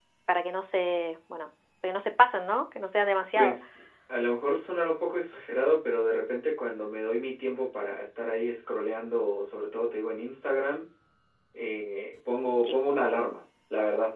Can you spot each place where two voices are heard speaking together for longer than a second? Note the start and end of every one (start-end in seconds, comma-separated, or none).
none